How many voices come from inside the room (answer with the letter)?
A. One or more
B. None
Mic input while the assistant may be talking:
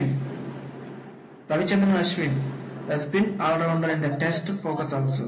A